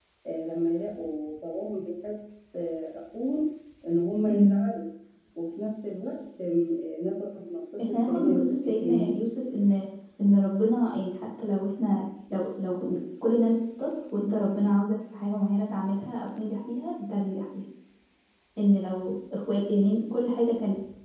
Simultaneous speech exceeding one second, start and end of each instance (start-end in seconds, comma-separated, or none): 7.9-9.1